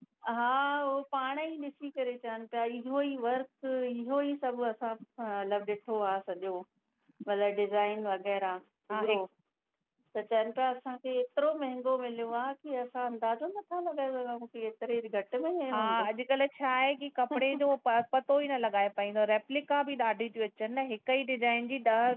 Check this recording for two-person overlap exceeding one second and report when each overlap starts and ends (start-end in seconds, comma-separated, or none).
none